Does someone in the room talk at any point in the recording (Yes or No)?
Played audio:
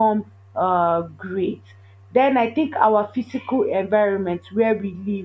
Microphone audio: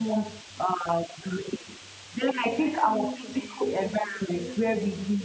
Yes